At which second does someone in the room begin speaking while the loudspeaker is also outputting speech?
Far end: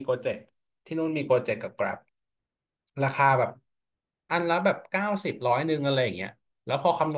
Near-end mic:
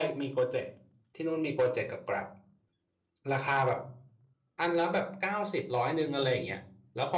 none

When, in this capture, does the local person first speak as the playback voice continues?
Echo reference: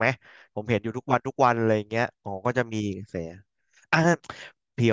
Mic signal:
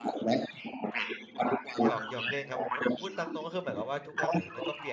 2 s

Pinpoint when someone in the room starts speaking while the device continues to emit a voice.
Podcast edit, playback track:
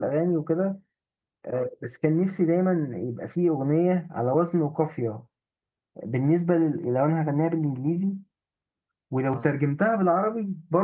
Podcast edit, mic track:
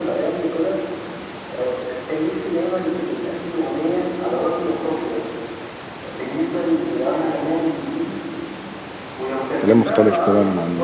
10 s

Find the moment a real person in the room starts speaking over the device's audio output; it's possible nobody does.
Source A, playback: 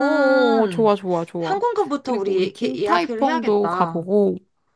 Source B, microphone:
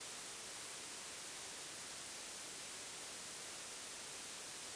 none

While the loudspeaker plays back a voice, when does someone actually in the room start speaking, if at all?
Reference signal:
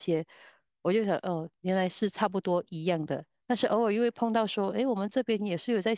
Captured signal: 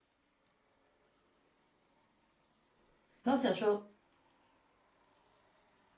3 s

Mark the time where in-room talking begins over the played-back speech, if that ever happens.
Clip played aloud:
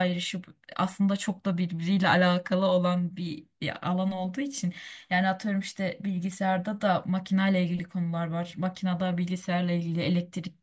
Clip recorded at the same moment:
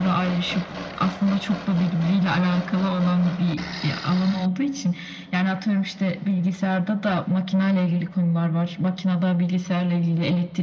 none

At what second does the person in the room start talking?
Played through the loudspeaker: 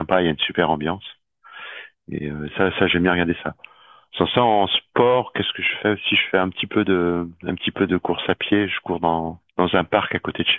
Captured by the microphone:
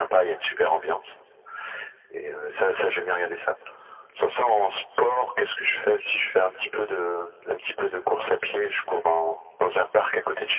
none

